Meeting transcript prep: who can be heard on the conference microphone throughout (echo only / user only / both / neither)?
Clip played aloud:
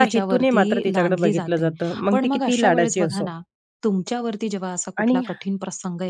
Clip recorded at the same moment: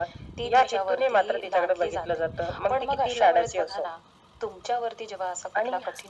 echo only